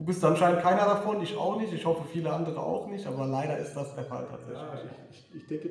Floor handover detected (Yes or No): Yes